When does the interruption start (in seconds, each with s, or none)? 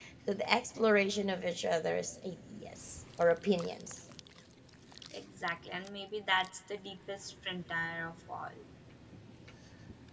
none